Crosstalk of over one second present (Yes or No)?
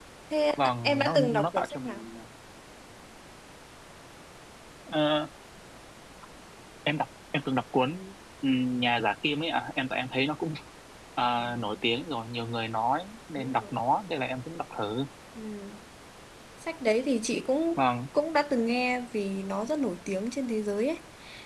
Yes